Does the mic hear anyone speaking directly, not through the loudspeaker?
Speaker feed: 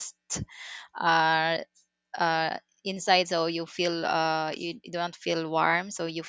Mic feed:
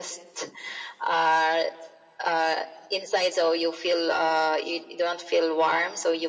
No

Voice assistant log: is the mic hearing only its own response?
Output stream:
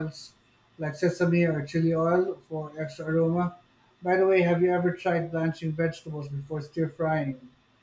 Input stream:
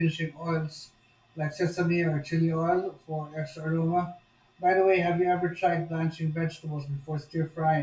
Yes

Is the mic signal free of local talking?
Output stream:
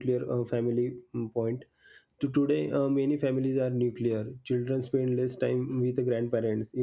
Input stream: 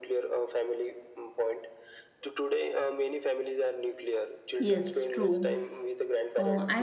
No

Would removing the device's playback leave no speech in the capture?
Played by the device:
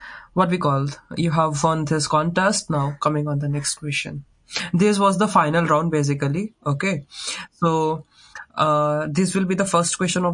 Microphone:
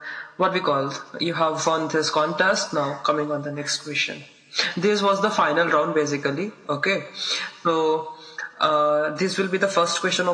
Yes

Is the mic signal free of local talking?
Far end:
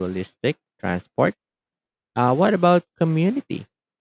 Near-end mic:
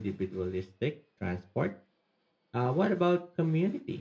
Yes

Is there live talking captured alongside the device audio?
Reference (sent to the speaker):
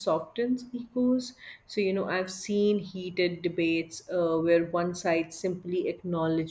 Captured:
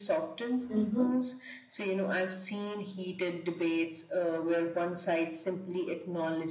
Yes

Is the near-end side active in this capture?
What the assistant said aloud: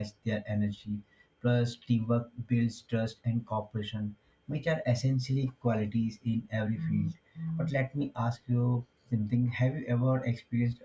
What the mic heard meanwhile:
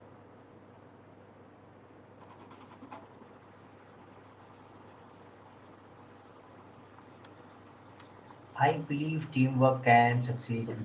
Yes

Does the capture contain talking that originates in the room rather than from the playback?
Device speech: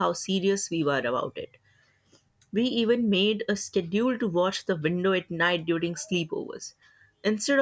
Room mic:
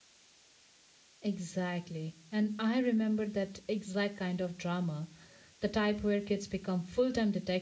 Yes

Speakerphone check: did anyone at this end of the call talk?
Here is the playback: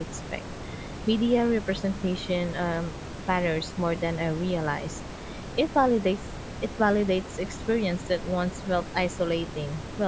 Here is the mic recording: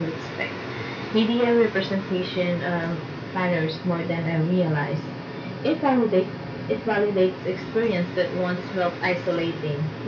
No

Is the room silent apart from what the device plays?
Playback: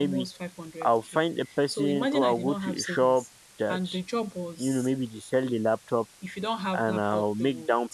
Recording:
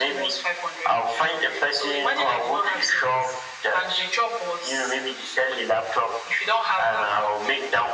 Yes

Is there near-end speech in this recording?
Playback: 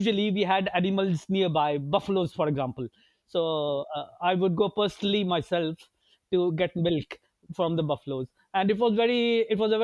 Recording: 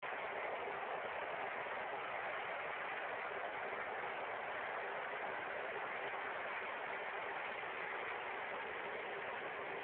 No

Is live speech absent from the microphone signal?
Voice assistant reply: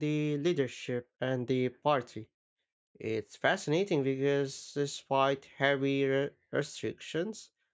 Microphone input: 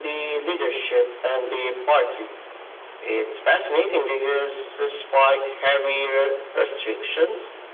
Yes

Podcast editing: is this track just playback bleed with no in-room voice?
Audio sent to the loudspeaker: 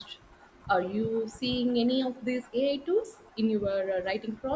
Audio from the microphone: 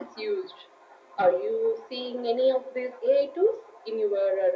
Yes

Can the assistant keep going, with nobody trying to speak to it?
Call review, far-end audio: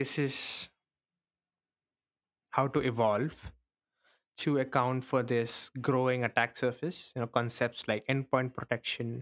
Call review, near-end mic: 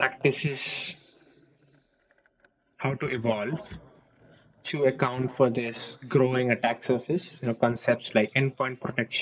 Yes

